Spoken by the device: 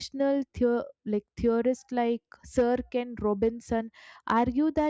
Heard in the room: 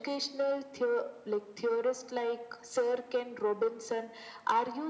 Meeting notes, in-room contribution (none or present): none